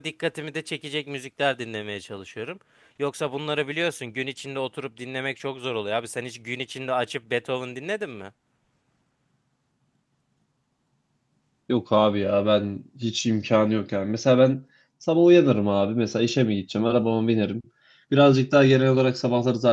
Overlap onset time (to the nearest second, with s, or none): none